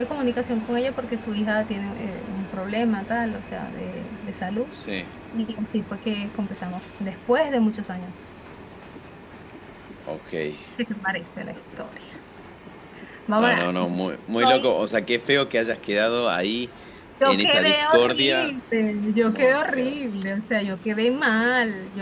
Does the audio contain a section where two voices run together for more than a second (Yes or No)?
Yes